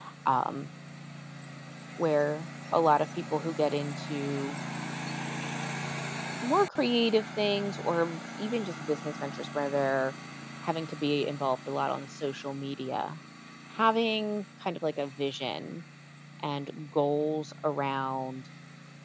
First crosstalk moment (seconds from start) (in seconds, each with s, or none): none